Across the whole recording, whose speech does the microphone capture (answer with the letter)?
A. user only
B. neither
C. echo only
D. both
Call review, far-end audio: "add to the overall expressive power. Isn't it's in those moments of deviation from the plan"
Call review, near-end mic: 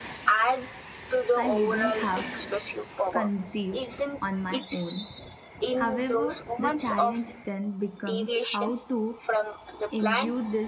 D